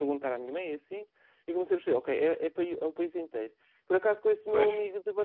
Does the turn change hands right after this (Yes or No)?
No